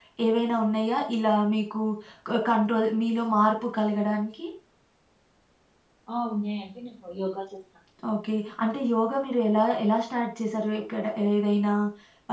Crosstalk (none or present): none